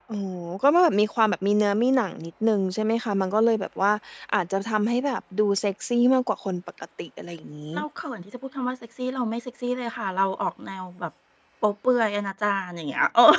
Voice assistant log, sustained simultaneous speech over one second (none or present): none